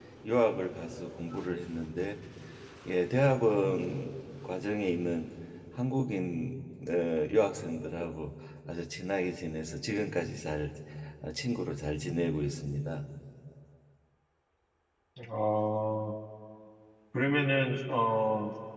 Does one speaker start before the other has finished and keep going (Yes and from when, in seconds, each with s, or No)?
No